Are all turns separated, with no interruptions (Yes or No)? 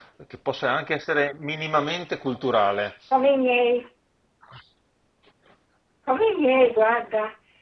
Yes